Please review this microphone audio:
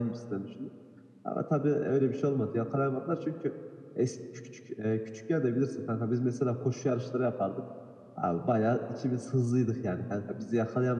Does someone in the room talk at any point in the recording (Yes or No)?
No